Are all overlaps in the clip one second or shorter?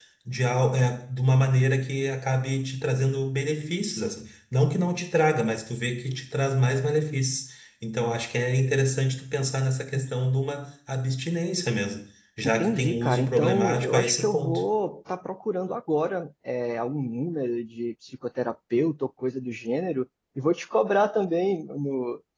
No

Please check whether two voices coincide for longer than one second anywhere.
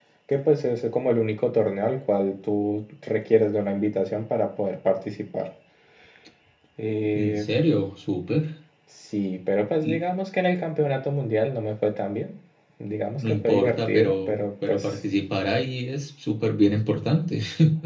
Yes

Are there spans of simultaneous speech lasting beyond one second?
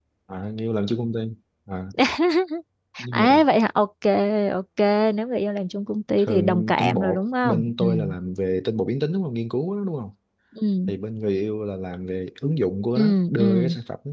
Yes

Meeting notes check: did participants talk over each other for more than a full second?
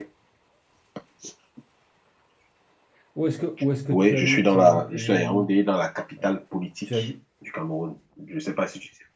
Yes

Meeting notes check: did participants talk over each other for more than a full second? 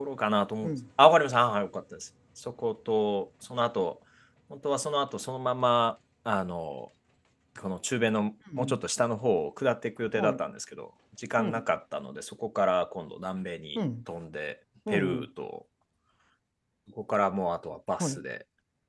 No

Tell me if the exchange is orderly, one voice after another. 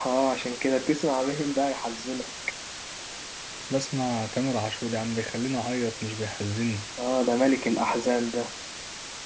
Yes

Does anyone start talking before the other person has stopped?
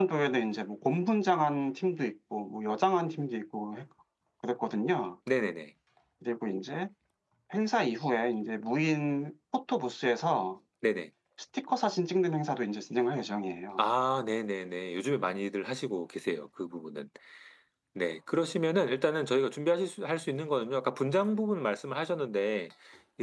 No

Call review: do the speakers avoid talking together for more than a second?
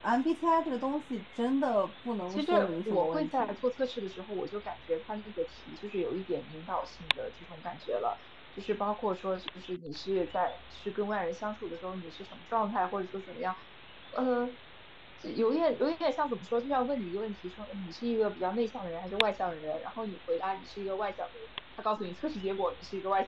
No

